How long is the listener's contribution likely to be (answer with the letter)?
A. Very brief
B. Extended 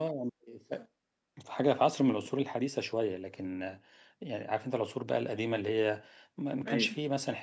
A